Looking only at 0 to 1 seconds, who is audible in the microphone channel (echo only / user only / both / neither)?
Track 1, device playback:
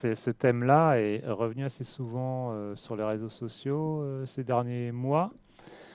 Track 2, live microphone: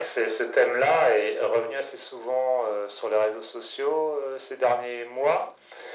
echo only